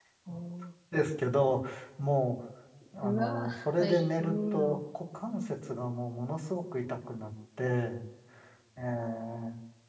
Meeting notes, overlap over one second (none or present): present